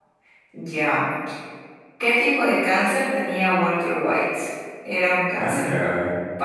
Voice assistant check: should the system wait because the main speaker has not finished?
Yes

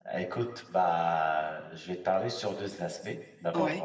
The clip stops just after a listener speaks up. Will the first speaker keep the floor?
Yes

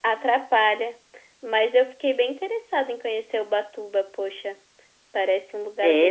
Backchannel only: No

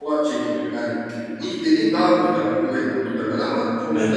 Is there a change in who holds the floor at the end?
No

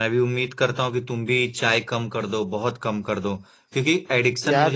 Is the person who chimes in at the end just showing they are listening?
Yes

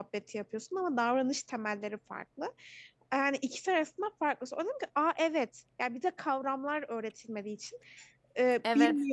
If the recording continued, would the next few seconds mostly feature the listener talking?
No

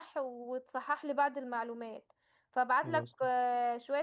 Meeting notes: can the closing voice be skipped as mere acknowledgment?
Yes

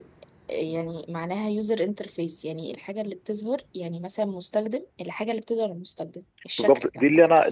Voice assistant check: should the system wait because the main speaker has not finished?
No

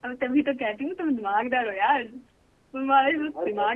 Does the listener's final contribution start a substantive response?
No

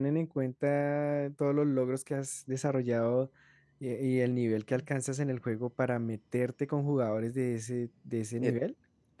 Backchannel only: No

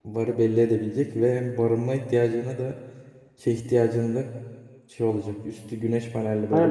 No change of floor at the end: No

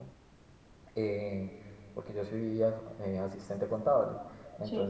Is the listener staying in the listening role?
Yes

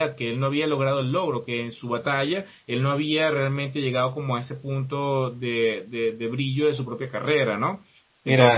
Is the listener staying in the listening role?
No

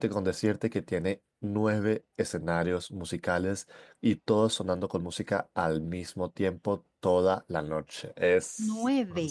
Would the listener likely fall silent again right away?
No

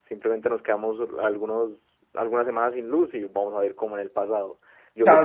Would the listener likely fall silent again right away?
No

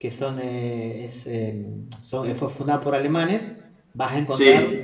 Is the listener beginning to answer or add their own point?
No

